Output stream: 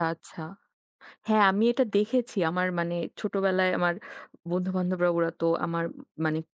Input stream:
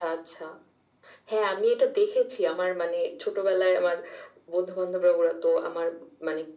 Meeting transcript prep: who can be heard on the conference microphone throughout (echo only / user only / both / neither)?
echo only